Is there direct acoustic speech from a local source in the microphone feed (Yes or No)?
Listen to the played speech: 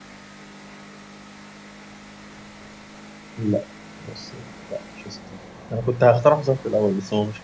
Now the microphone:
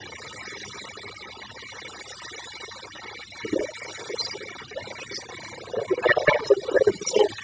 No